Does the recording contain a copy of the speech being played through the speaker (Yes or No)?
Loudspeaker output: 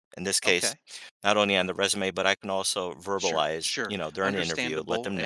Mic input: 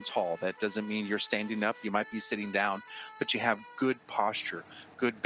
No